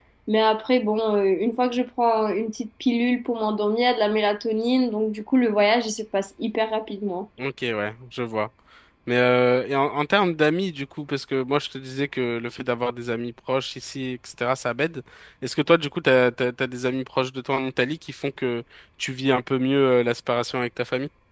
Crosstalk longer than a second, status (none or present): none